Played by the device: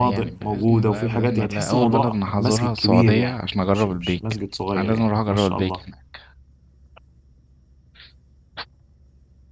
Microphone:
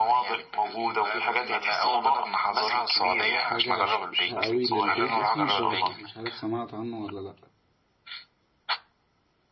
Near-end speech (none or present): present